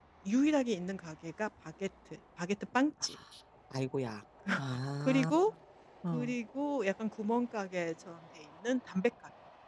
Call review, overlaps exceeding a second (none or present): none